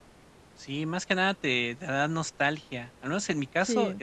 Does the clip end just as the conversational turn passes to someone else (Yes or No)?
No